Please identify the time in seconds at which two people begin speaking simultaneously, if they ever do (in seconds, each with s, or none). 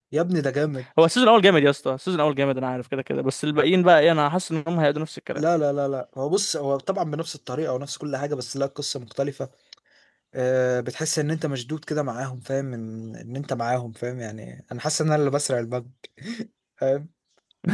none